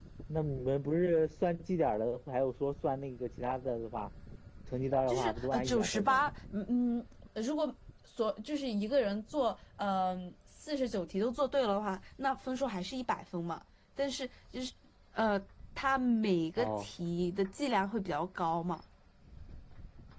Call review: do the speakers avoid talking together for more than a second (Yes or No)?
No